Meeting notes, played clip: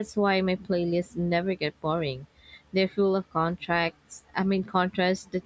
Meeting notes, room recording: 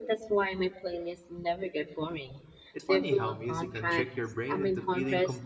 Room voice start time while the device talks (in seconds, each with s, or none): 2.7 s